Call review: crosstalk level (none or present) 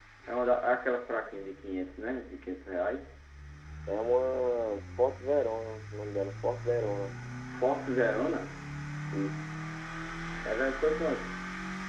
none